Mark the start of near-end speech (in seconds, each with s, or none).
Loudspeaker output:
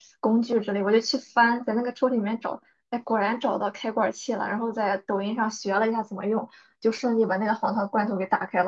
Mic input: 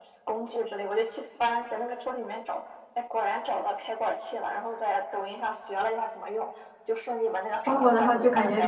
7.6 s